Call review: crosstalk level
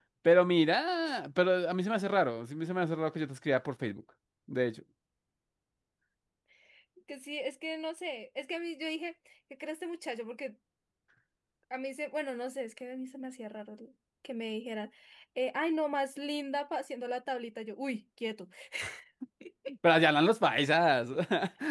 none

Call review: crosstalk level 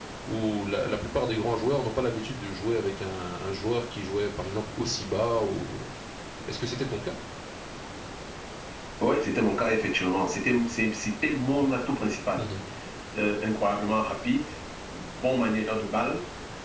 none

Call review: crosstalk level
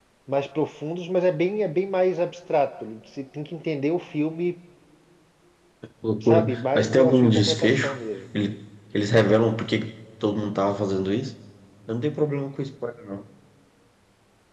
present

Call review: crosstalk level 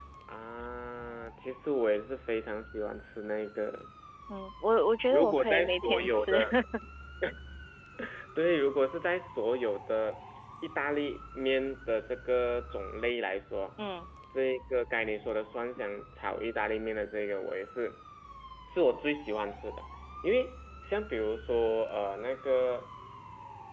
present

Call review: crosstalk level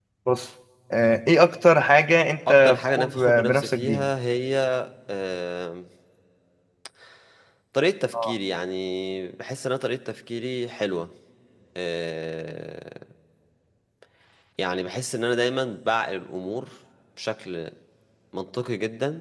present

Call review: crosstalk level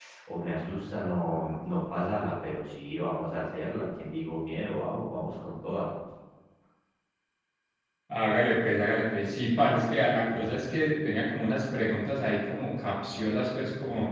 none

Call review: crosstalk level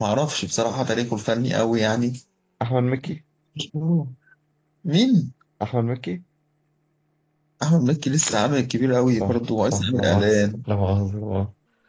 present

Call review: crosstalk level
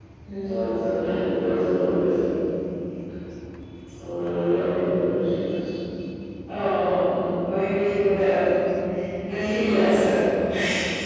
none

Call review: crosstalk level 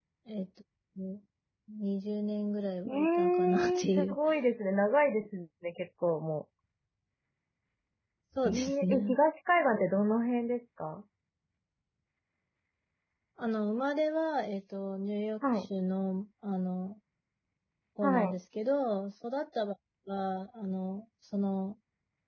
present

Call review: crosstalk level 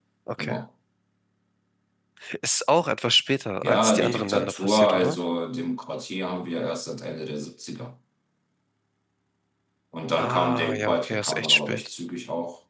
present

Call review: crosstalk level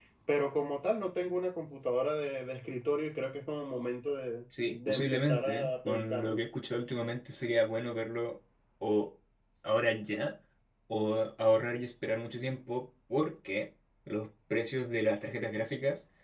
present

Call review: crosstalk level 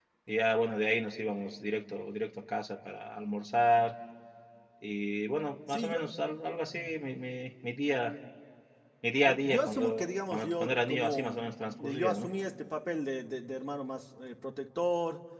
present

